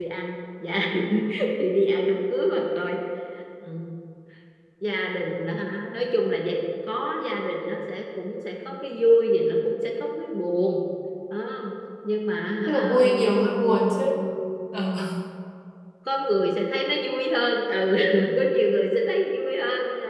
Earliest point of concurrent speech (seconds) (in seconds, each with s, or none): 12.7 s